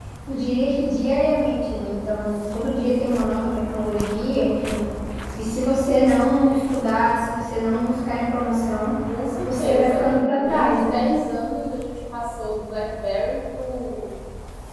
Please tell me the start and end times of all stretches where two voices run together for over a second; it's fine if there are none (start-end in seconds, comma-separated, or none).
9.4-11.0